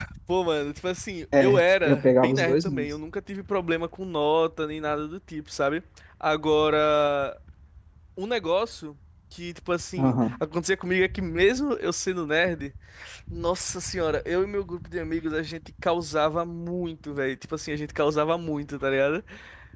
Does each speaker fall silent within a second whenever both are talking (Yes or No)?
No